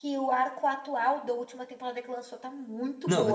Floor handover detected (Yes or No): Yes